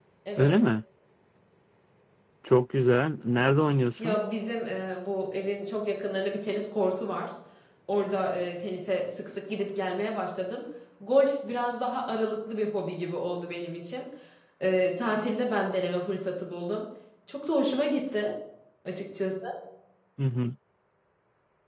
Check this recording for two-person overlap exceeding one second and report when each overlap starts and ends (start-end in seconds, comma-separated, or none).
none